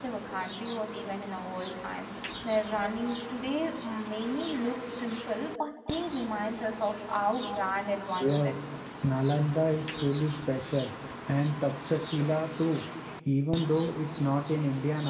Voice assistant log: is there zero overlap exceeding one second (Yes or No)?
Yes